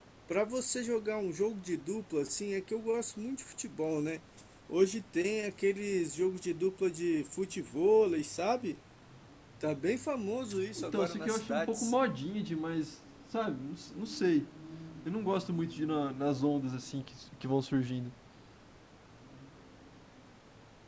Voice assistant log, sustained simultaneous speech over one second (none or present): present